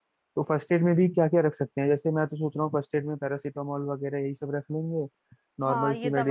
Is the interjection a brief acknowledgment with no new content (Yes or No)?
No